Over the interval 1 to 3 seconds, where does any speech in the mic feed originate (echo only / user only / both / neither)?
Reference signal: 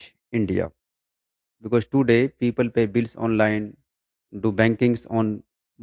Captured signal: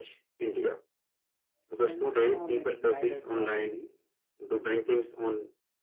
both